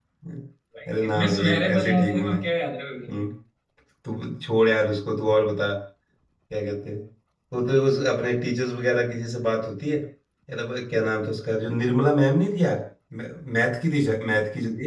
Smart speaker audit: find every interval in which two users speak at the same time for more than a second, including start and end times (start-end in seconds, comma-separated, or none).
1.0-2.4